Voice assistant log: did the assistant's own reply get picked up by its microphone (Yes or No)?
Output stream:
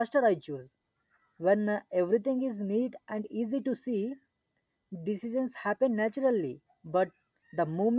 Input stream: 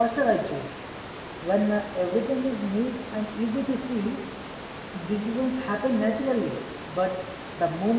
Yes